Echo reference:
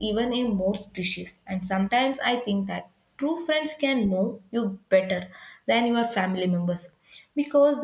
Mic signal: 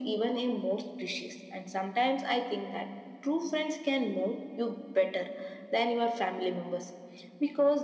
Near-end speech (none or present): none